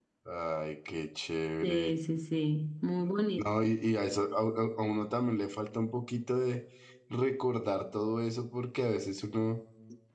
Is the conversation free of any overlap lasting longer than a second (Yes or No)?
Yes